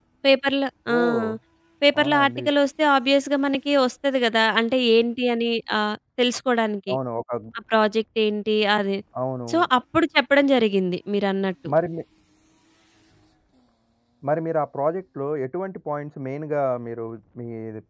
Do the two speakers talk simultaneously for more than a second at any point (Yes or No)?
No